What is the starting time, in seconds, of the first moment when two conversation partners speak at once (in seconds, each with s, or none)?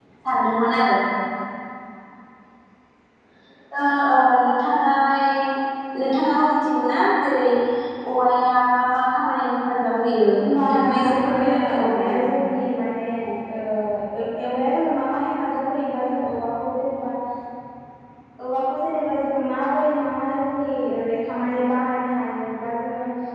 10.4 s